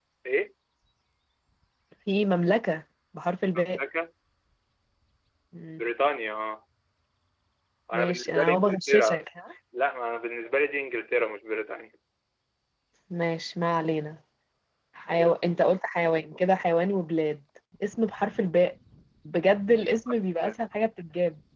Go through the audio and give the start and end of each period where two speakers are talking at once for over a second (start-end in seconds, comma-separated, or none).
7.9-9.2